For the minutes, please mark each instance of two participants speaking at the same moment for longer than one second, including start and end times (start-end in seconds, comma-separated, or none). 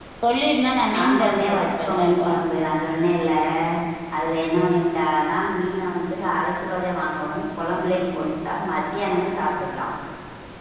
0.9-2.3